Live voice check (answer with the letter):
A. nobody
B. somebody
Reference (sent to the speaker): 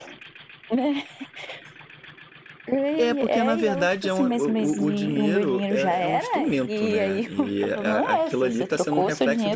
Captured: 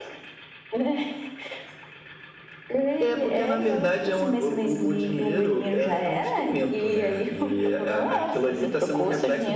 A